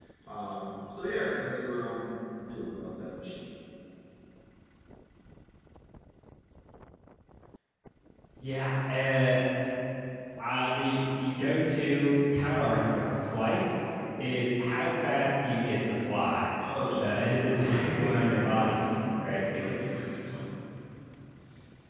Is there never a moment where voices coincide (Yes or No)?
No